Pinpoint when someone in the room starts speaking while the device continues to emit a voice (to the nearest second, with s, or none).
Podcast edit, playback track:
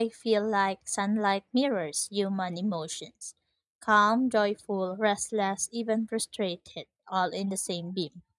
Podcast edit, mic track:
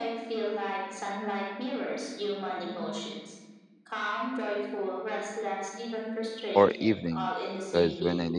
7 s